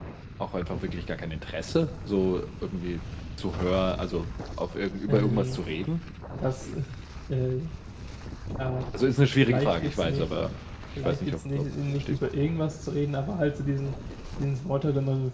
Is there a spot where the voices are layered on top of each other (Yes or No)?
Yes